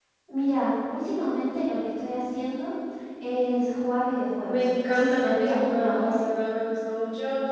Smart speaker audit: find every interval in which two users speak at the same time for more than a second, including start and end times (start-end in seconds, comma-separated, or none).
4.5-6.2